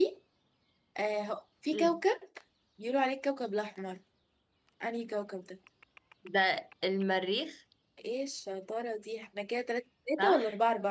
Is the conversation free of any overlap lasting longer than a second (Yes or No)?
Yes